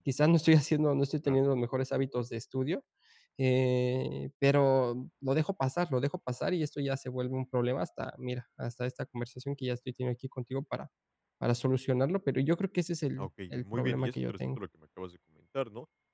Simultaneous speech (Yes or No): Yes